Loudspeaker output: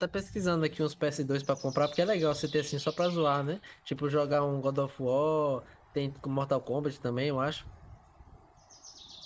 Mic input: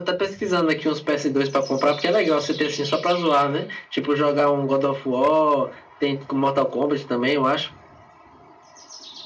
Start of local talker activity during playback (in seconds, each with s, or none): none